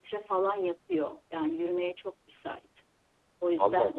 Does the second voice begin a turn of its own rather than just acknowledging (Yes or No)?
No